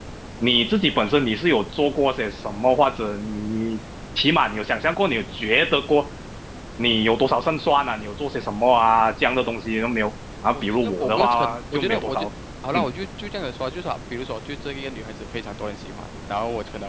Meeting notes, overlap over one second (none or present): present